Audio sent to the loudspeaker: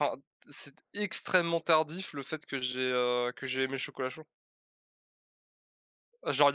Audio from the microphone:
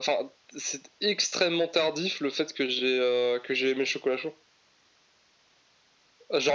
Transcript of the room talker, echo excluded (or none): none